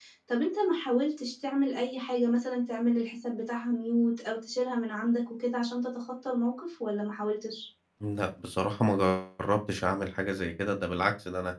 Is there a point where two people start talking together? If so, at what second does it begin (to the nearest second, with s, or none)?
none